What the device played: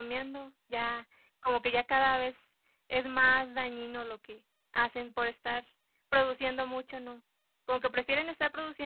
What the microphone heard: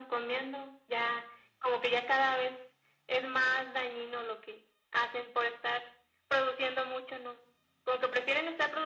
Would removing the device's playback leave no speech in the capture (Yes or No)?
Yes